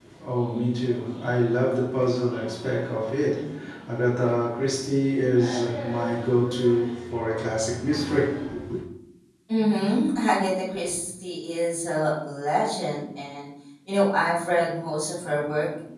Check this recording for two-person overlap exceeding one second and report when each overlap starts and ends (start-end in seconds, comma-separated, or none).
none